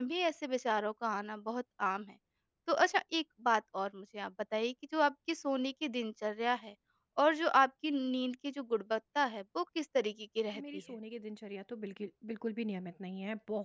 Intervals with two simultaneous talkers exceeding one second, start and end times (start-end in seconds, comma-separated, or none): none